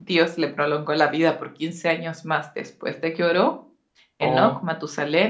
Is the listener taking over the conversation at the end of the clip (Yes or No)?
No